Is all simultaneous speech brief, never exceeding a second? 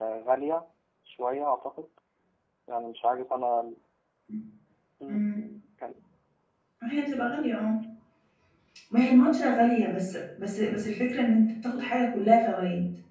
Yes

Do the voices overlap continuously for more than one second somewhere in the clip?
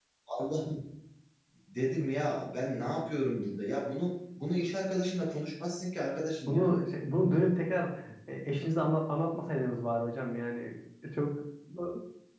No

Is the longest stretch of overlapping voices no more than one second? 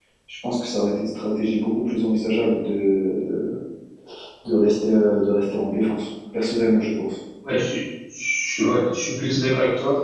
Yes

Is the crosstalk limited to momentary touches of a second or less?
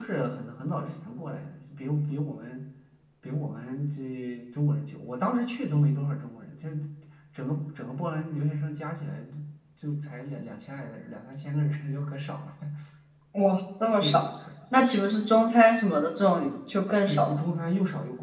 Yes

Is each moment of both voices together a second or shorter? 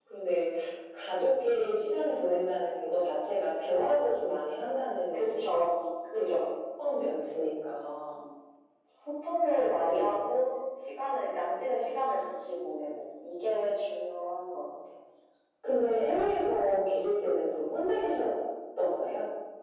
Yes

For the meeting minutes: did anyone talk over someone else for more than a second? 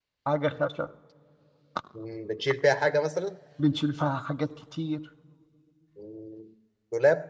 No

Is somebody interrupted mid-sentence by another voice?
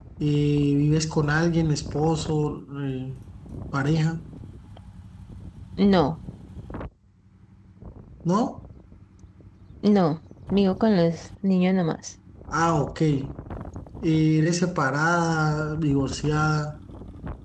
No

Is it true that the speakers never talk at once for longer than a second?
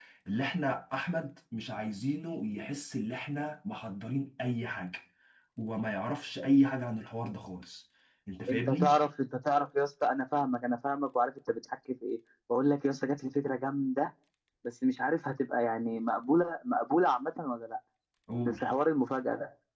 Yes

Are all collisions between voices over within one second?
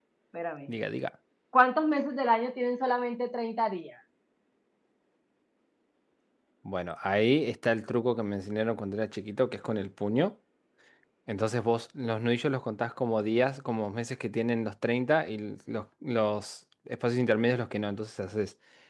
Yes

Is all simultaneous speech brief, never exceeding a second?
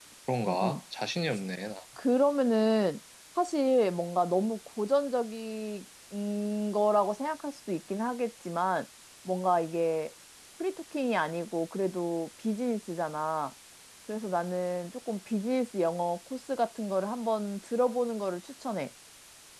Yes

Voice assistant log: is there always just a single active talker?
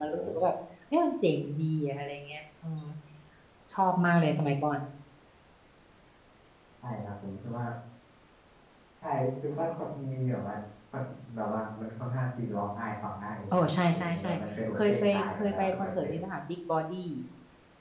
No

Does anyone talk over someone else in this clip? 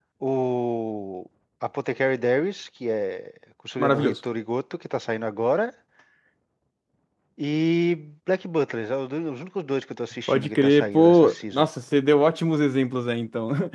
Yes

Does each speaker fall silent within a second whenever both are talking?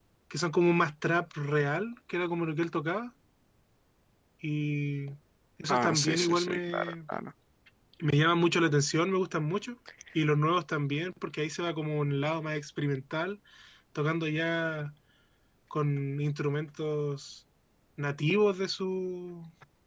No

